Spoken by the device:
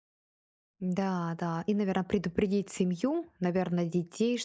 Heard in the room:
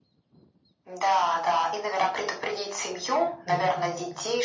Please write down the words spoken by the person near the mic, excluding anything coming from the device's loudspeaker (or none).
Да,